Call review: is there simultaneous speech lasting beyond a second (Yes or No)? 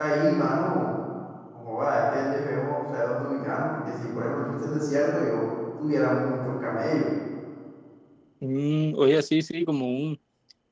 No